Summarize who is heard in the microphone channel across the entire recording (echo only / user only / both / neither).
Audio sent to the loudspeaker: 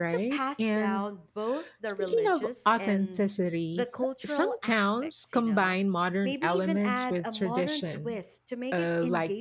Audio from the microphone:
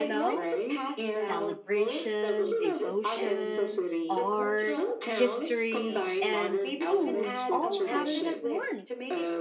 both